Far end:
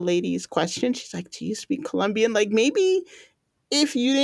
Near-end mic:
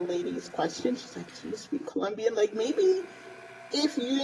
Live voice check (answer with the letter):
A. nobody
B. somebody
A